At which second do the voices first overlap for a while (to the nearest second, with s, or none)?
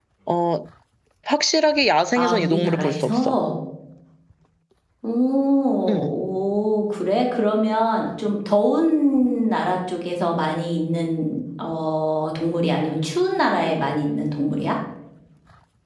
2 s